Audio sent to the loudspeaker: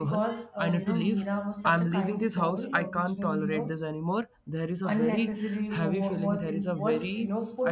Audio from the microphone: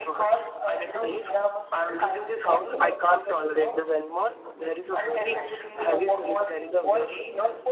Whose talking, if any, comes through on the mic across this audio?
both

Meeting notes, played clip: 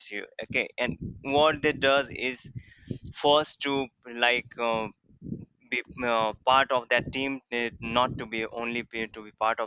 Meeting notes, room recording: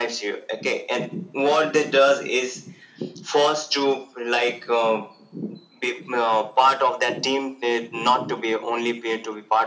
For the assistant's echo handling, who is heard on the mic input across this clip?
echo only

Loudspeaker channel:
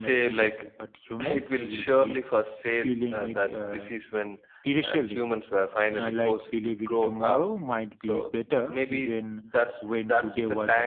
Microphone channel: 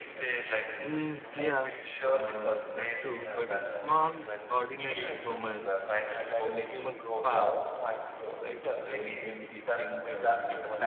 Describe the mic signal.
both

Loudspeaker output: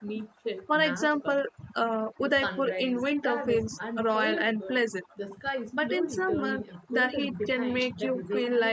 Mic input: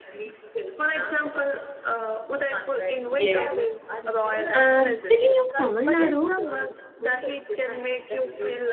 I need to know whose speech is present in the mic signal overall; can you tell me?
both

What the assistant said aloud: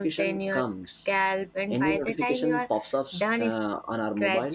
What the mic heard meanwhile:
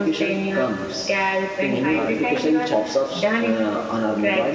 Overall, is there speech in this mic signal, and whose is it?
both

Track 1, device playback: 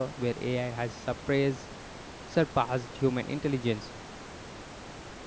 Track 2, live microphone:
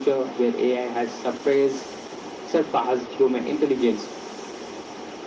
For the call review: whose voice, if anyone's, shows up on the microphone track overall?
echo only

